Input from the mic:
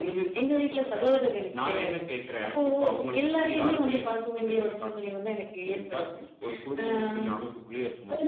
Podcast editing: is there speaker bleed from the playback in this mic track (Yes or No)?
Yes